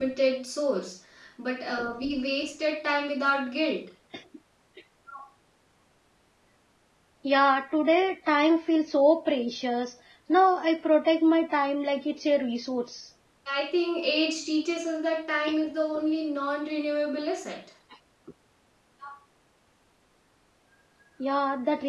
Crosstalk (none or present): none